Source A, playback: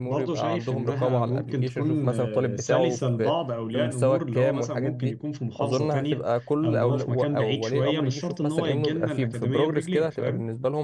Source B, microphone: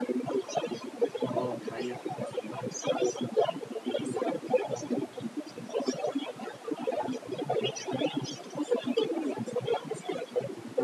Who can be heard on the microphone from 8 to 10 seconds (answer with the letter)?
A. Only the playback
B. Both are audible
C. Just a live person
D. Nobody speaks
A